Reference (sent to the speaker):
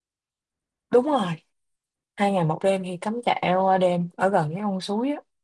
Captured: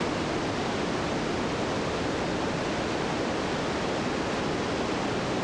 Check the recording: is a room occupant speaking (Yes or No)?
No